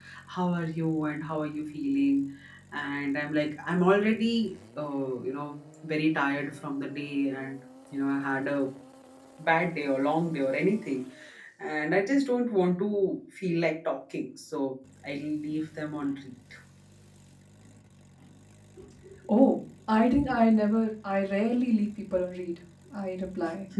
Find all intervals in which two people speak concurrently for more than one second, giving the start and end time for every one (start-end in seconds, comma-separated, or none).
none